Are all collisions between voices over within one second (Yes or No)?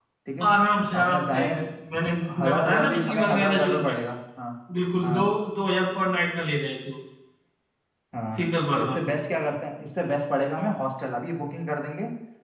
No